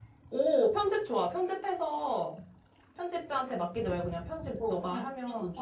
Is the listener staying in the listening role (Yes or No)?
No